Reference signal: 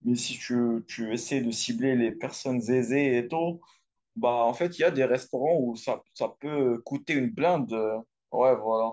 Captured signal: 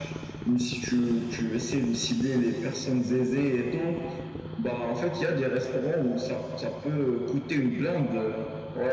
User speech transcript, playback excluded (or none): none